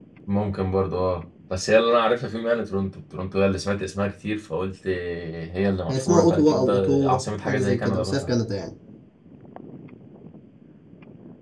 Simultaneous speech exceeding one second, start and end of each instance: 5.9-8.3

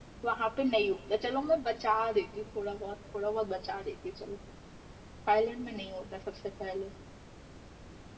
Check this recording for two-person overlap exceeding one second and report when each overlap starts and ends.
none

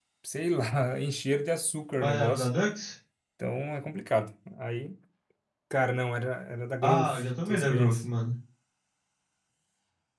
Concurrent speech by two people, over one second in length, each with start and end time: 6.8-8.0

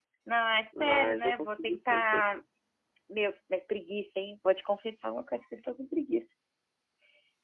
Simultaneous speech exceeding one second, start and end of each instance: 0.8-2.4

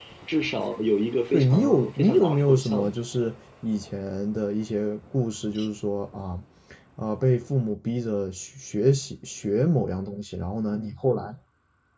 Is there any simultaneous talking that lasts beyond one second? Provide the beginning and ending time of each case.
1.3-3.0

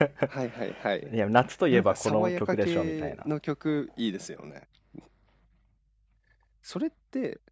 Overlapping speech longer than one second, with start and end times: 1.7-3.3

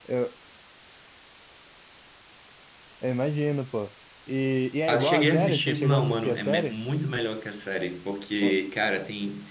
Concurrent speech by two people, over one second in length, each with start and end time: 4.9-6.7

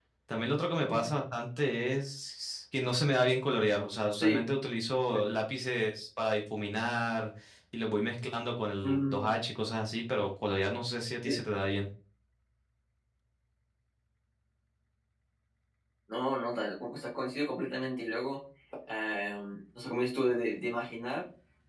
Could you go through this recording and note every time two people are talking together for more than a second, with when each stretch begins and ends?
none

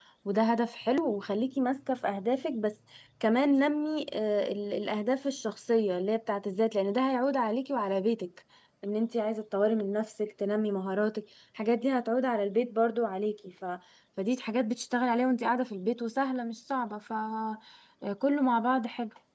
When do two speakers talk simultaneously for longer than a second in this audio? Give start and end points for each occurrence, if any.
none

